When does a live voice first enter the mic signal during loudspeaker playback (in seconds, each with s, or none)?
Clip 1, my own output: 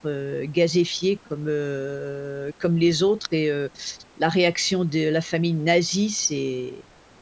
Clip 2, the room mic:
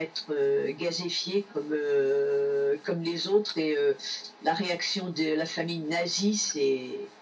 none